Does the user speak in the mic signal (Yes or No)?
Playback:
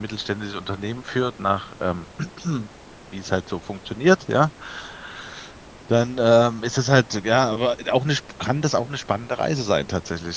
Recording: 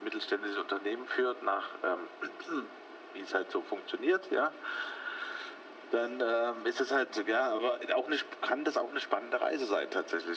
No